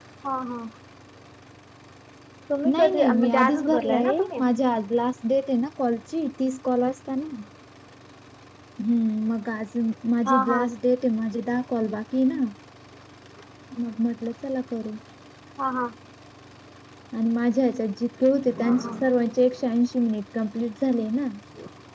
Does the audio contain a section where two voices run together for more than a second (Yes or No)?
Yes